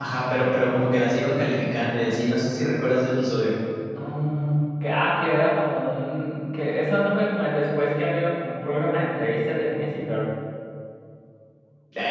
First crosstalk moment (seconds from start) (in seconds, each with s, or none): none